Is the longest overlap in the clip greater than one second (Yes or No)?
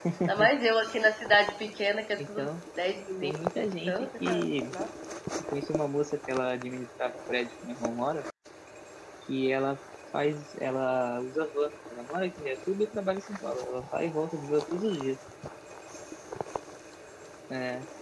Yes